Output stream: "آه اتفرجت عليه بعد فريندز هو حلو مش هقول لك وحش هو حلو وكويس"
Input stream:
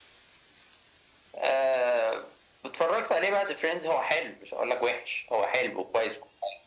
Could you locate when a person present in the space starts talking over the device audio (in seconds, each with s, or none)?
none